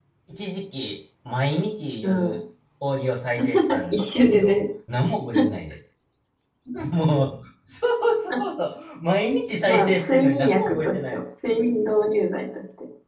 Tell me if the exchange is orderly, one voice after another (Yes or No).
No